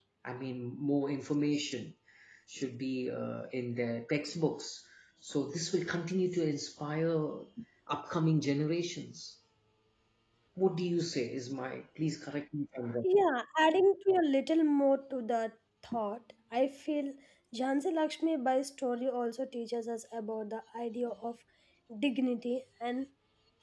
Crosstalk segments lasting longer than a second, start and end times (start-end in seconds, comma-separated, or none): none